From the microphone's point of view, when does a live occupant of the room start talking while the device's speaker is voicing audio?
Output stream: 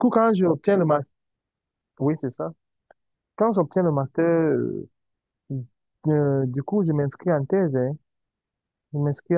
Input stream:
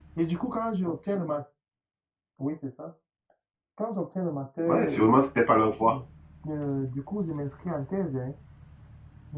4.7 s

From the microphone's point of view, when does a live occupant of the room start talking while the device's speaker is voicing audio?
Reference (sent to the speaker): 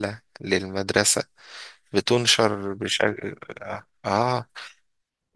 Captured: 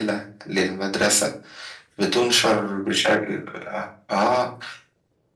none

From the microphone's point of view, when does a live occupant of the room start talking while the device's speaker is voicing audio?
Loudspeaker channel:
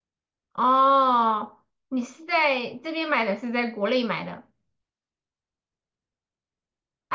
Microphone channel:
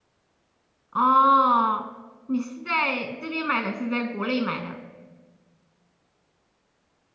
none

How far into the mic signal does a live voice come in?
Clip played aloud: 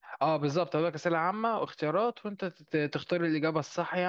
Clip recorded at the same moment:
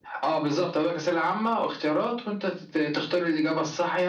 none

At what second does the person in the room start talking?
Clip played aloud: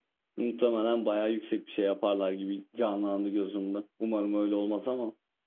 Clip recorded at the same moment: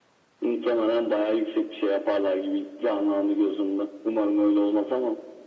none

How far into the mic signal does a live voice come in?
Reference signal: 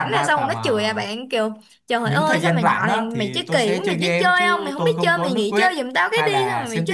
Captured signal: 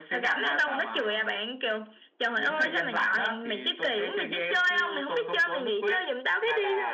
none

